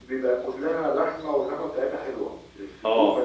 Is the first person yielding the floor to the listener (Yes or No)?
Yes